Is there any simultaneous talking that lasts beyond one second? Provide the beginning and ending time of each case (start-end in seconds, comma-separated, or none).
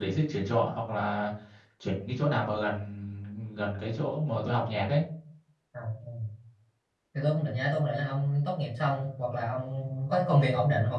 none